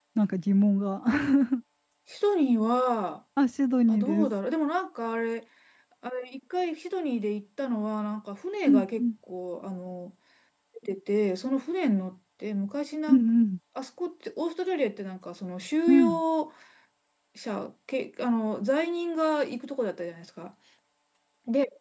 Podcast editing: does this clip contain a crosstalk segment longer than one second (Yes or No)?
No